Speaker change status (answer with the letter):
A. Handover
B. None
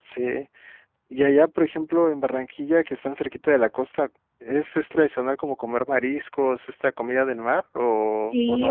A